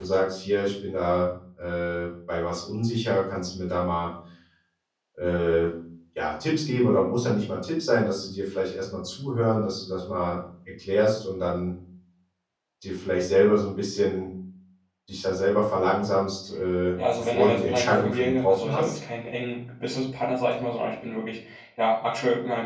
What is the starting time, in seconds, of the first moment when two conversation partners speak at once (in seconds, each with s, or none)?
17.0 s